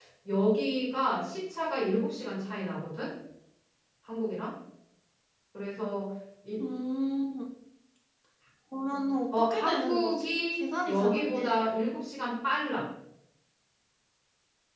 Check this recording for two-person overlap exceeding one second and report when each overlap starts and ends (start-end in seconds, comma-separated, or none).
9.5-11.7